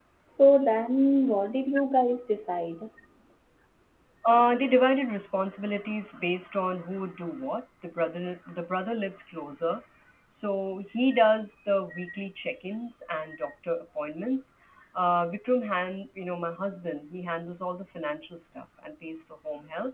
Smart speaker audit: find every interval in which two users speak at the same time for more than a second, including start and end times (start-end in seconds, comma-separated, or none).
none